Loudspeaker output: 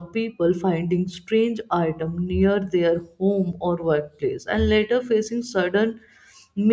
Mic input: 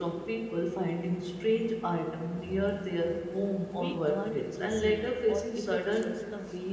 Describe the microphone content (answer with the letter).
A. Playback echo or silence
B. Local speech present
B